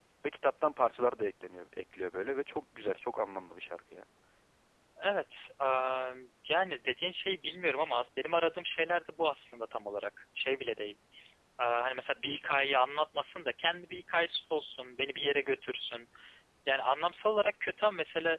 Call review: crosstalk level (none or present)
none